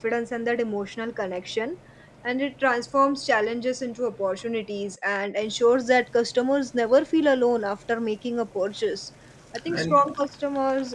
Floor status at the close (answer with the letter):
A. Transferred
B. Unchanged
B